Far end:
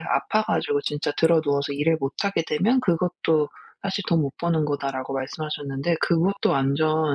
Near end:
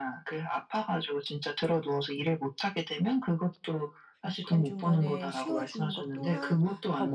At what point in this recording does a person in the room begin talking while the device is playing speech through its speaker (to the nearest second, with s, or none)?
4 s